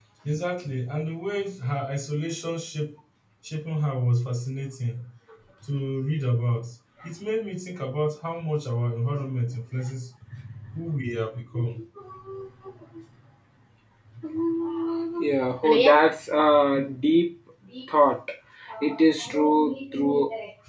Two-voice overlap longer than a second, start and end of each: none

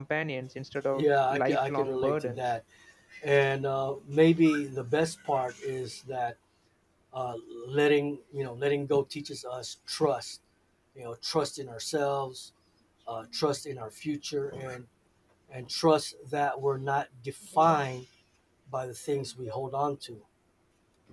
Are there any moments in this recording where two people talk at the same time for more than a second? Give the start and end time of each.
0.9-2.4

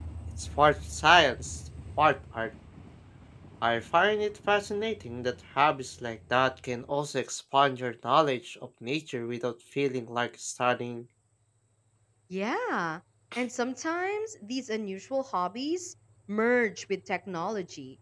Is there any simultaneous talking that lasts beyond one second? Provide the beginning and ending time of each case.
none

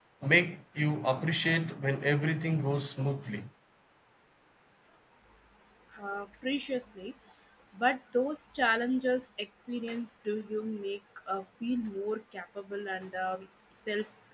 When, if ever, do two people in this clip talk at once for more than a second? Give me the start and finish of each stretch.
none

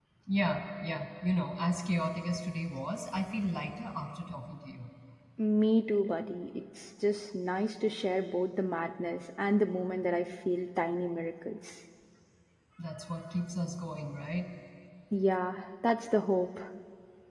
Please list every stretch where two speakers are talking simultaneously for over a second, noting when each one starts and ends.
none

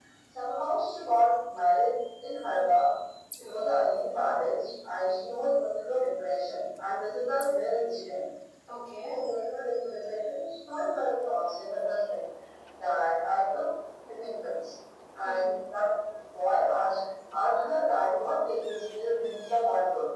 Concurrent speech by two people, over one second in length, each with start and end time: none

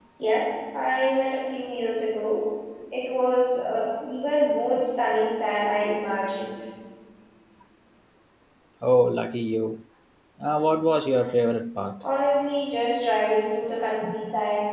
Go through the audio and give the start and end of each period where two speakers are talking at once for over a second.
none

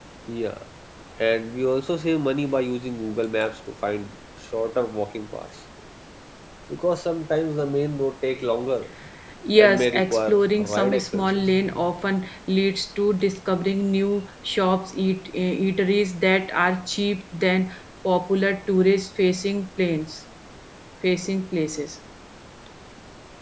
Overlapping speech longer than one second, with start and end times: 9.6-11.4

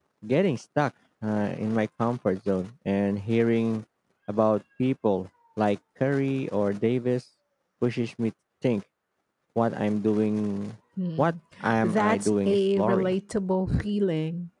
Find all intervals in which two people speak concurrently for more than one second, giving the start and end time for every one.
11.8-13.1

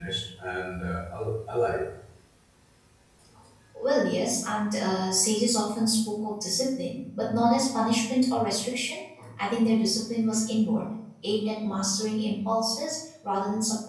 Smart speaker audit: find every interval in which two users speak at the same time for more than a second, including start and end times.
none

